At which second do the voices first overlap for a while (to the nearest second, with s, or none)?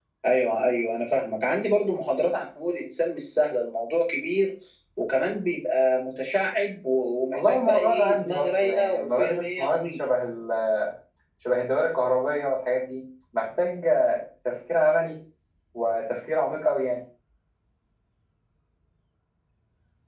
7 s